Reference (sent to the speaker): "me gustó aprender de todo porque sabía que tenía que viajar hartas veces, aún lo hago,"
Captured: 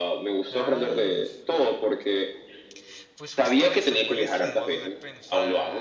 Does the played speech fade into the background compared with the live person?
No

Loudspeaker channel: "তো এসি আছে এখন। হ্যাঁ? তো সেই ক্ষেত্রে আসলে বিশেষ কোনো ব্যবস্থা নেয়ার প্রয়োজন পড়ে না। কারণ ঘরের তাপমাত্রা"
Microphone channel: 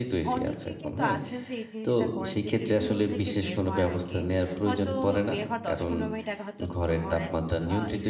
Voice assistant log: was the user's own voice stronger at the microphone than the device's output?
No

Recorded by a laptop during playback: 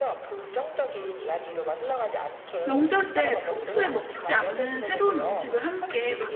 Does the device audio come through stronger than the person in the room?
No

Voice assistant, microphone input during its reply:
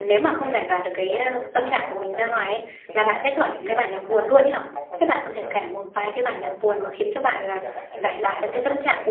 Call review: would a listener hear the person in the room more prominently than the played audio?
Yes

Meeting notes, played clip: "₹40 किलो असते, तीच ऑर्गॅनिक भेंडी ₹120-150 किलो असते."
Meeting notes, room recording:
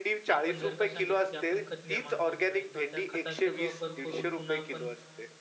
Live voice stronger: No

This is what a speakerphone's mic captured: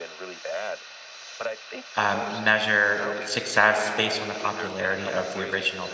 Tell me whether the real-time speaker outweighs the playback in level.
Yes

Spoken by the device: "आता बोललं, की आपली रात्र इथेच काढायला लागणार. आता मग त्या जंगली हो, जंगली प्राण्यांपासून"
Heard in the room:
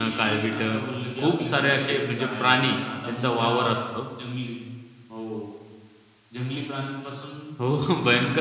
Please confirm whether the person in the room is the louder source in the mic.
Yes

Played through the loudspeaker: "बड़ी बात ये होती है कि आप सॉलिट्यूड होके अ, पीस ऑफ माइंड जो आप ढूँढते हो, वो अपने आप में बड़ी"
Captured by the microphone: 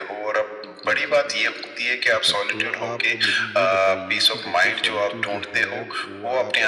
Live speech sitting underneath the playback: Yes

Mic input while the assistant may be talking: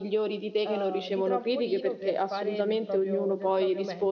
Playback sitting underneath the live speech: No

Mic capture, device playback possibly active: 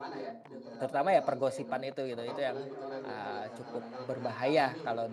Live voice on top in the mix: Yes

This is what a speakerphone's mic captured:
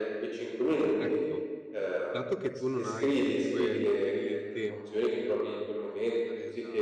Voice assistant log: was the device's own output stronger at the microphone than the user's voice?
Yes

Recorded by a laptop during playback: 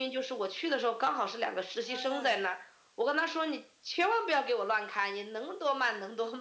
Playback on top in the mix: Yes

